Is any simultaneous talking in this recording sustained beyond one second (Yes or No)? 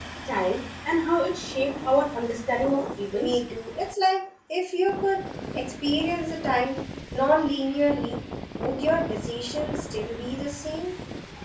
No